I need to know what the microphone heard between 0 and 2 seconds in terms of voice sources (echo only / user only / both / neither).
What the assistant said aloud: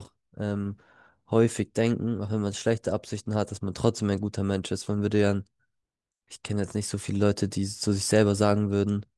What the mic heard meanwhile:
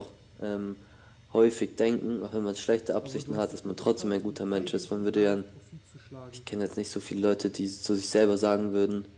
echo only